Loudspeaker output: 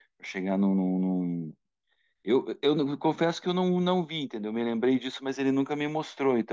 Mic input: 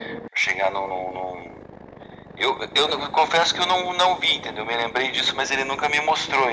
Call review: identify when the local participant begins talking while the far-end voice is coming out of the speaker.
none

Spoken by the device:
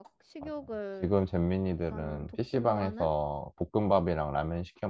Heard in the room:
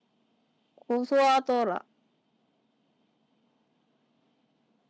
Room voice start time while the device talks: 0.8 s

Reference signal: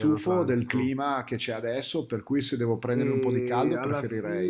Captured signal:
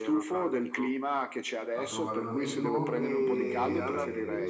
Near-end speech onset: 1.7 s

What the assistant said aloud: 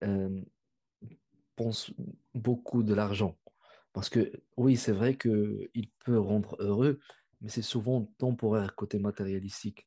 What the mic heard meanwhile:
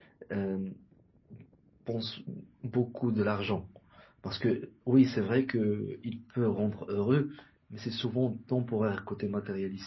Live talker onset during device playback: none

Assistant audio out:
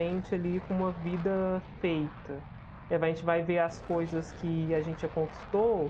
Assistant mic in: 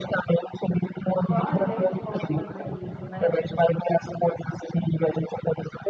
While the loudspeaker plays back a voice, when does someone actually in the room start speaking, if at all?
1.3 s

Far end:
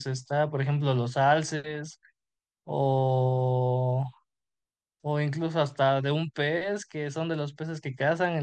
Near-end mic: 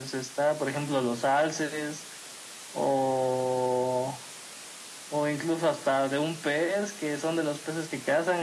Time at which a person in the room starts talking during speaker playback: none

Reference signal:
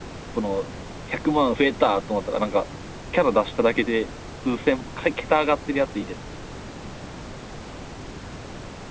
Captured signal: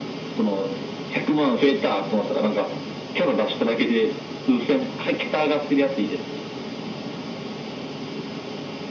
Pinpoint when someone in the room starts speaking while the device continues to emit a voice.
none

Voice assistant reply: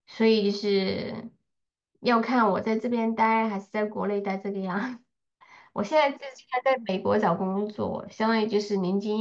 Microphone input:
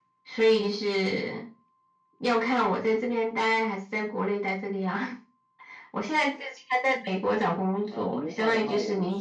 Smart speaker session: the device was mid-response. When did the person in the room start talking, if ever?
7.9 s

